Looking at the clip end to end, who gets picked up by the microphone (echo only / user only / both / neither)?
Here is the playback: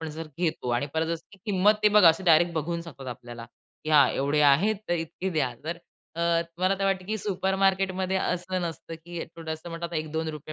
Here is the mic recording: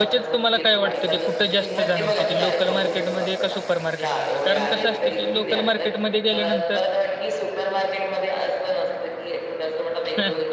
both